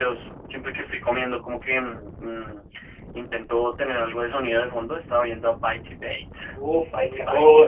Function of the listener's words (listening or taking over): taking over